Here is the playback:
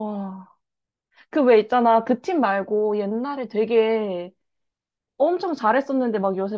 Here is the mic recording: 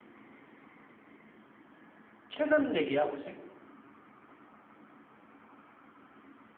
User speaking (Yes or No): Yes